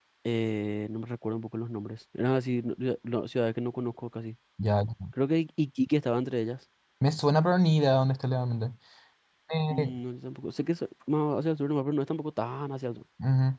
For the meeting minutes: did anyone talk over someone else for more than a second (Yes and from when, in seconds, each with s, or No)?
No